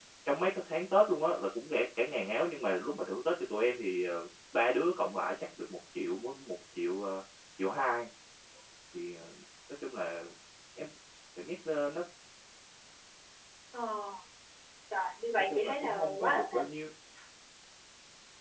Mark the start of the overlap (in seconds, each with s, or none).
15.4 s